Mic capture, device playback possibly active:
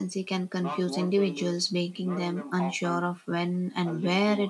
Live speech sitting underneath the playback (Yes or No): No